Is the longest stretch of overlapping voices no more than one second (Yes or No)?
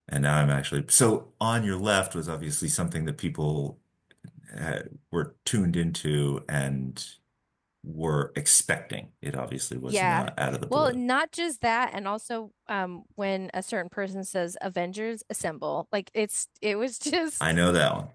Yes